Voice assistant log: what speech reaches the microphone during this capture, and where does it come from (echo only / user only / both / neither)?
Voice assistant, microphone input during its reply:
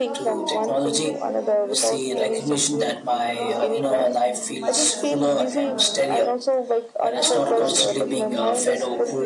both